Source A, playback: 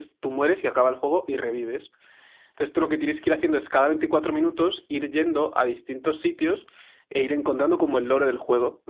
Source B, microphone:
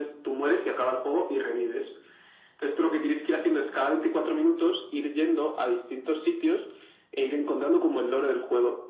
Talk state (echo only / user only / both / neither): echo only